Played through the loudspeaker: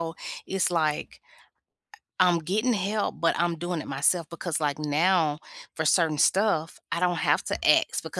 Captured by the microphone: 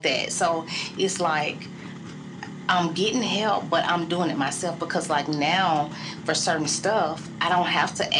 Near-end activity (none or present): none